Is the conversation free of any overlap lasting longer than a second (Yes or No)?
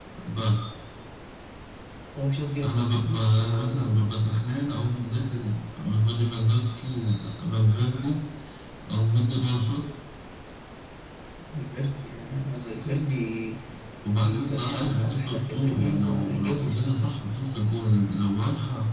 No